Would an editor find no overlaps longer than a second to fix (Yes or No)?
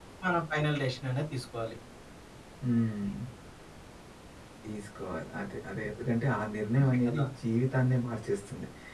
Yes